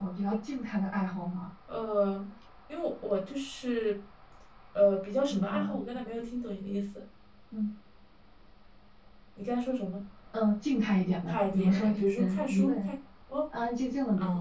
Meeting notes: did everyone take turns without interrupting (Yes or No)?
No